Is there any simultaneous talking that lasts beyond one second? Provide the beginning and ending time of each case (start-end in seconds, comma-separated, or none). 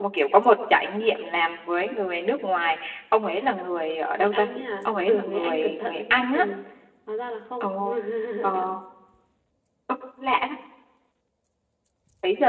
4.8-6.4